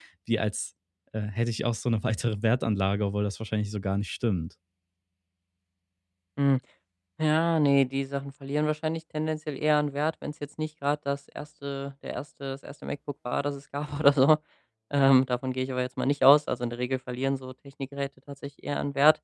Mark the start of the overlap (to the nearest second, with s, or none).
none